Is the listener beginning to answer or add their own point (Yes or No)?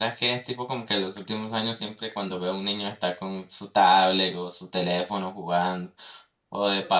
No